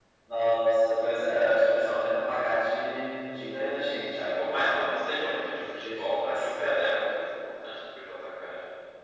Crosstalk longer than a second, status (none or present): present